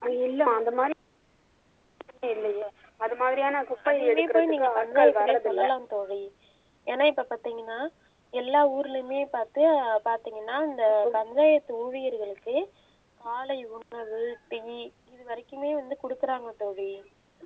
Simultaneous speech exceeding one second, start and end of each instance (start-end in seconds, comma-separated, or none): 3.9-5.6